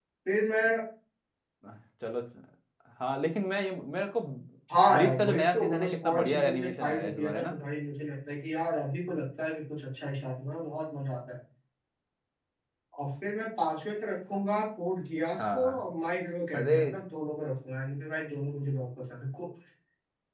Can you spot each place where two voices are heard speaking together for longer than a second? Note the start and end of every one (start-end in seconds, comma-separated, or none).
4.9-7.5